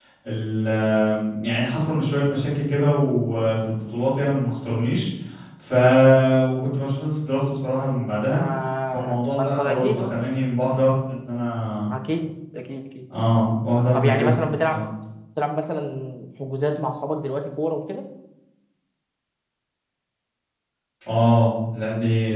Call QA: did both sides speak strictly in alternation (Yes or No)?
No